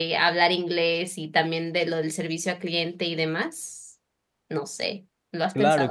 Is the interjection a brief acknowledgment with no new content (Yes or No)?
No